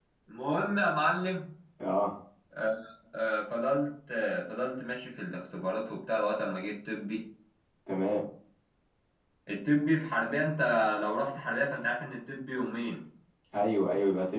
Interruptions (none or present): none